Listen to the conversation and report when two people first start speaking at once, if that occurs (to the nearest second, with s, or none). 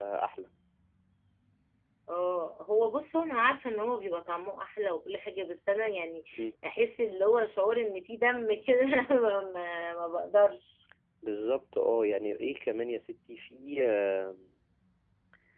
none